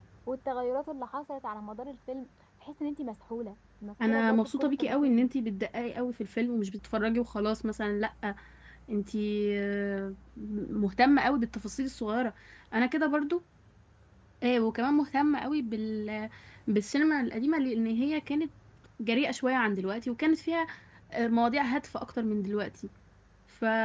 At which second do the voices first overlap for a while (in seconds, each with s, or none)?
4.0 s